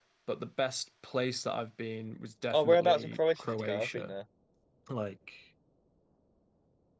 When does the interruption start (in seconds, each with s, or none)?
2.5 s